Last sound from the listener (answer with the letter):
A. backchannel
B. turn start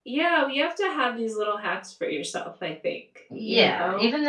B